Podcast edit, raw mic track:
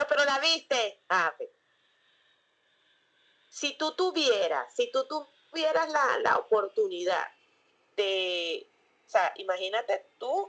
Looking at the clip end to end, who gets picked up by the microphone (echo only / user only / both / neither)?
echo only